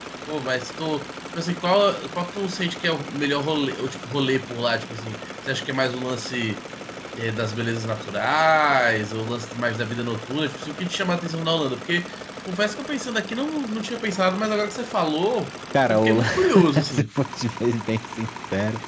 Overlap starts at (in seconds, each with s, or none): 15.7 s